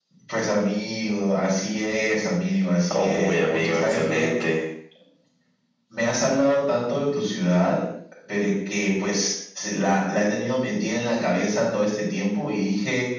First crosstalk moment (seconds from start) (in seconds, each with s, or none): 2.9 s